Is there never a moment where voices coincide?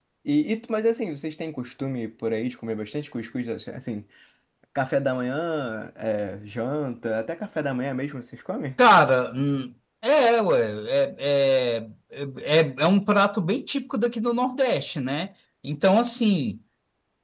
Yes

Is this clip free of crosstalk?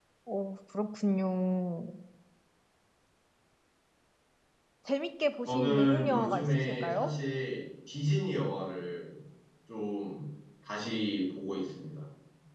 No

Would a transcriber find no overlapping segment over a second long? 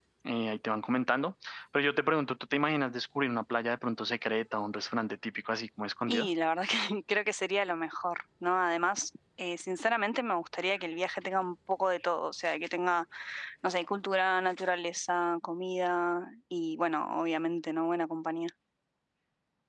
Yes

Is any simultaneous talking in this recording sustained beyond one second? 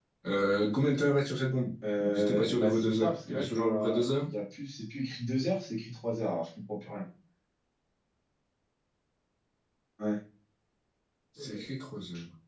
Yes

